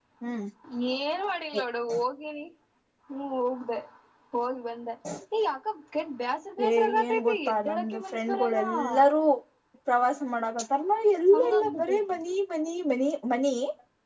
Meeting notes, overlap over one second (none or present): present